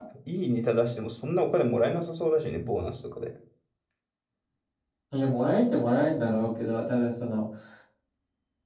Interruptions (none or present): none